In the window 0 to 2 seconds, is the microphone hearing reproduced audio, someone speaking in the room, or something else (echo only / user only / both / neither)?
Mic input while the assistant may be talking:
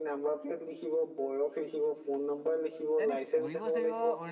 echo only